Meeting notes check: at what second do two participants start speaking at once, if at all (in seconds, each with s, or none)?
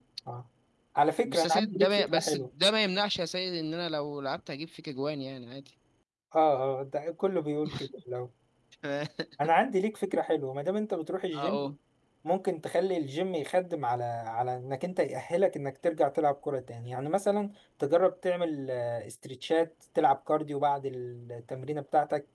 1.2 s